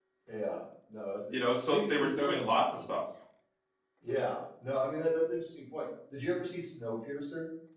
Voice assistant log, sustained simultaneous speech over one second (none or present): present